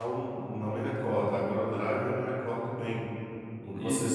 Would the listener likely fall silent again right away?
Yes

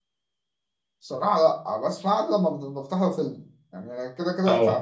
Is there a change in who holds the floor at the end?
No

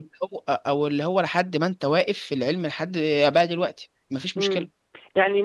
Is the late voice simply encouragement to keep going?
No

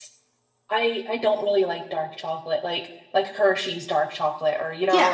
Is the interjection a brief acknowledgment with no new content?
No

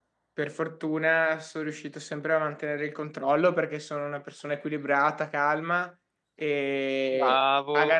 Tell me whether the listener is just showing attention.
Yes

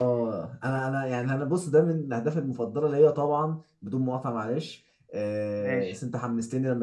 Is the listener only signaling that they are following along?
Yes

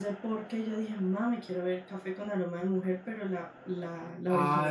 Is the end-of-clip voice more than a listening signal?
Yes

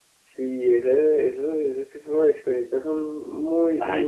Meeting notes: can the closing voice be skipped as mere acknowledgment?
No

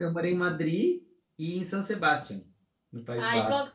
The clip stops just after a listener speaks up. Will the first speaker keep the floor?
No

